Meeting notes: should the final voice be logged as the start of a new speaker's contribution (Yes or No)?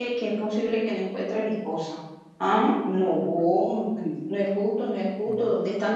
No